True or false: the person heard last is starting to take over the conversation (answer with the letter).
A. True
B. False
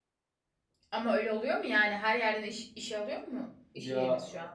A